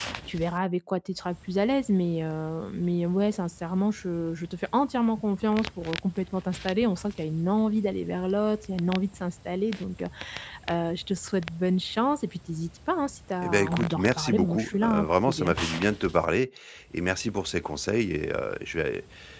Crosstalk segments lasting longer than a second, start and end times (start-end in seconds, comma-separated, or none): 13.4-15.5